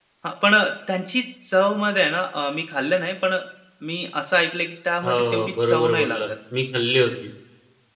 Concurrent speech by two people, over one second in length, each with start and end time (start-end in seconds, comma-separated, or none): 5.0-6.3